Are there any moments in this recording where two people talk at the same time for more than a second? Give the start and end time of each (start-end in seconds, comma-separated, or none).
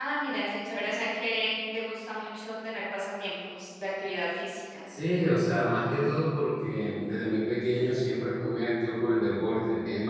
none